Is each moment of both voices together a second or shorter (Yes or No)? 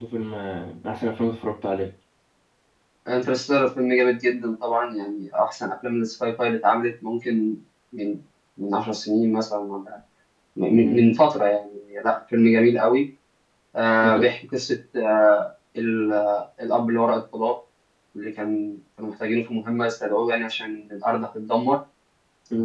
Yes